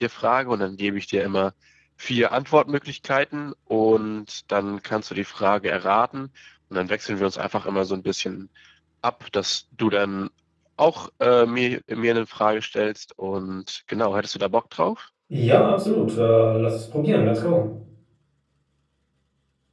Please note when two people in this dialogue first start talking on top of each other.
none

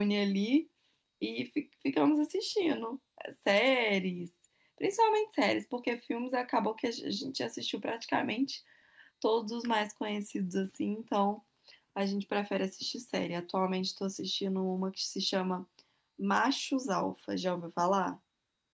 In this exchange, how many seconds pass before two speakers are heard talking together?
none

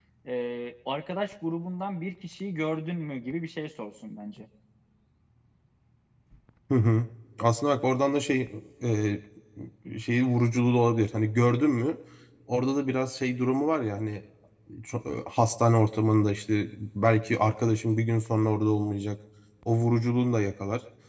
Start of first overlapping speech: none

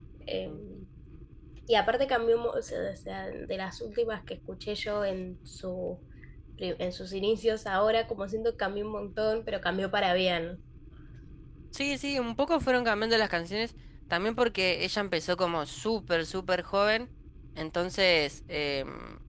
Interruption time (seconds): none

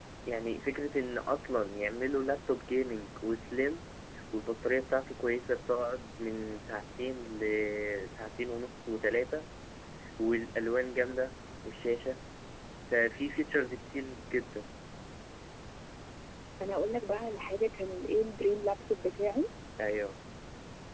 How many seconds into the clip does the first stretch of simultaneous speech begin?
none

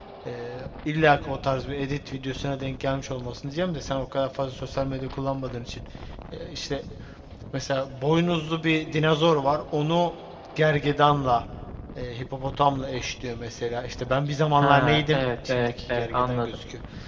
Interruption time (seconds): 14.6 s

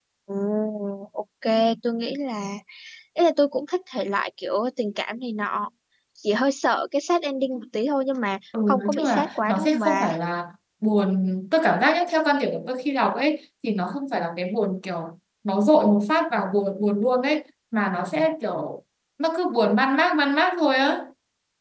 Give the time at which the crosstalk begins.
8.5 s

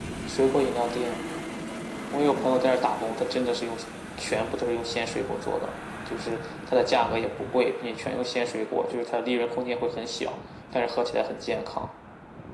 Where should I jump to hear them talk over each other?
none

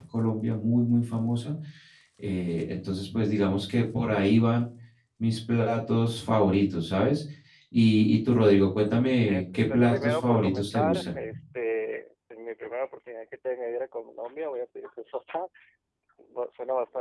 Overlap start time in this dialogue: 9.3 s

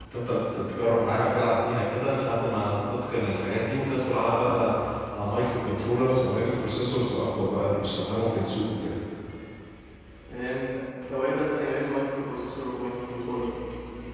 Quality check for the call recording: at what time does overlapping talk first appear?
none

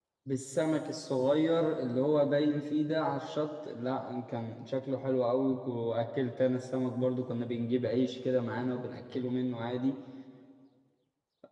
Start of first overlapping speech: none

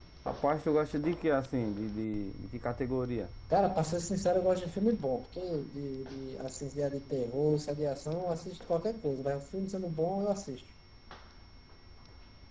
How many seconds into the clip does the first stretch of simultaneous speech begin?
none

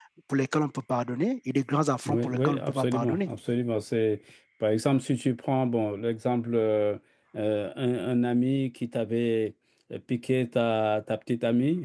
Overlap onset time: 2.0 s

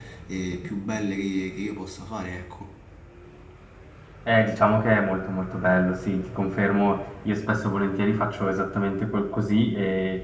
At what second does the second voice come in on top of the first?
none

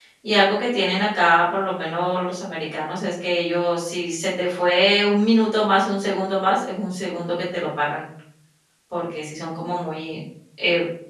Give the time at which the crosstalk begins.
none

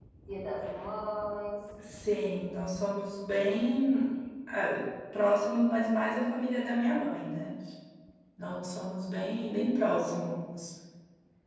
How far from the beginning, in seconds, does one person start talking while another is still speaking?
none

